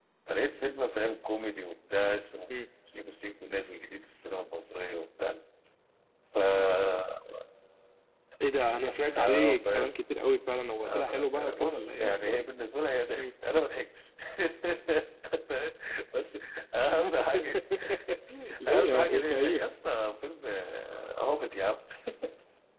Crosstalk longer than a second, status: present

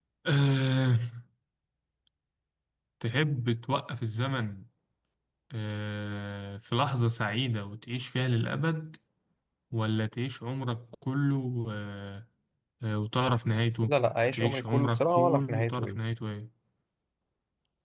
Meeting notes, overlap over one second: present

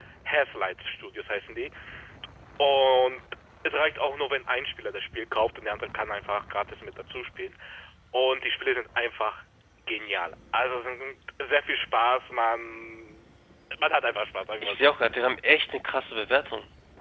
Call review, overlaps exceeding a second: none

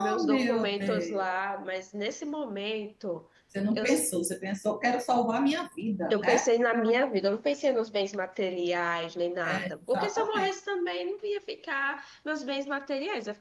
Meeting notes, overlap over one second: present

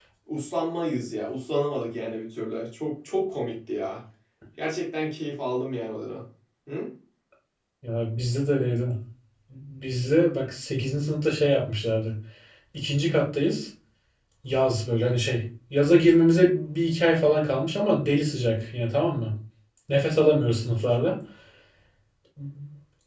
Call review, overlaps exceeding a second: none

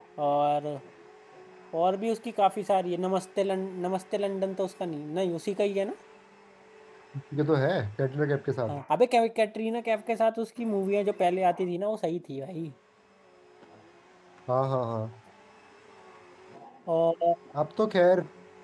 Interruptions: none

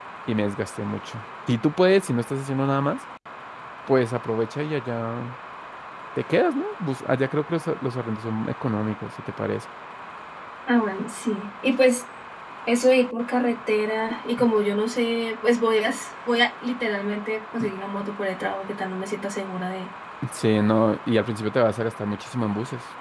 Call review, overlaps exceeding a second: none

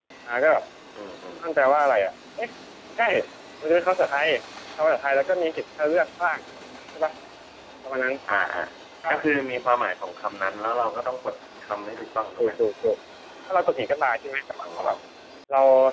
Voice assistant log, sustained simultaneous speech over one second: none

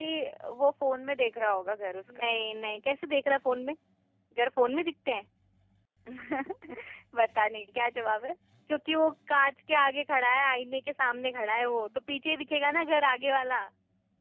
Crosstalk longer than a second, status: none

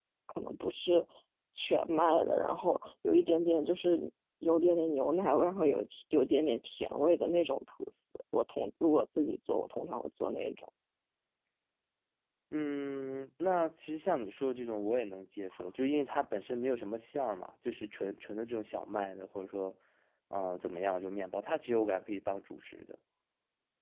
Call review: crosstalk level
none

